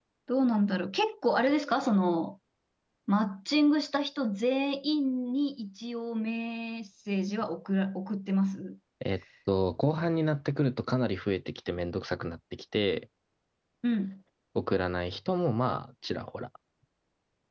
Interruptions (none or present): none